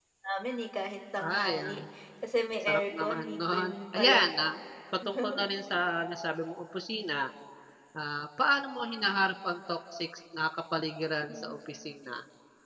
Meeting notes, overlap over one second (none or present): present